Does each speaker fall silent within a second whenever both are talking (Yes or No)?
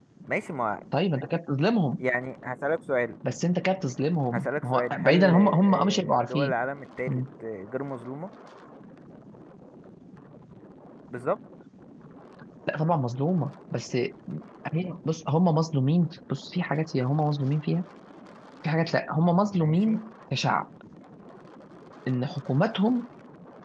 No